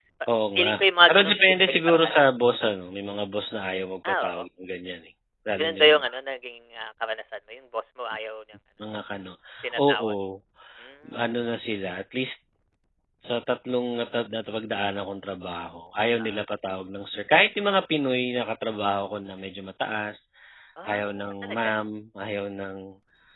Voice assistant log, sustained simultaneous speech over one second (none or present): present